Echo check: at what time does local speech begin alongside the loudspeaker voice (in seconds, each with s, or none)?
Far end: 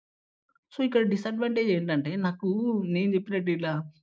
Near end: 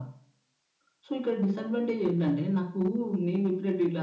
none